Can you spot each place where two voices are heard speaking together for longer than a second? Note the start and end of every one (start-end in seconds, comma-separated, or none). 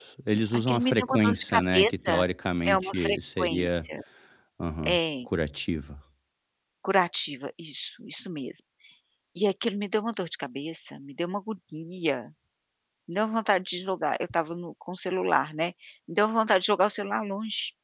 0.5-2.2, 2.6-3.8